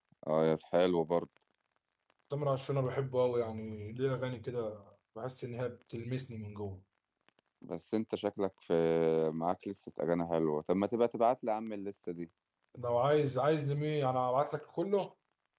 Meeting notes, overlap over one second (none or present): none